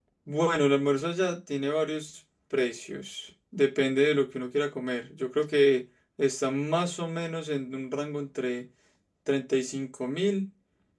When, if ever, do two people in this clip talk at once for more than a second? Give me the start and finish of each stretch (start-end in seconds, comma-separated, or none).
none